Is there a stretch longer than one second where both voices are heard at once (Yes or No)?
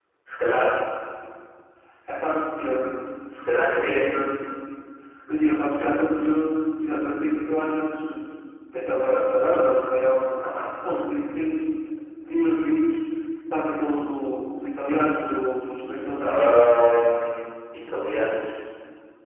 No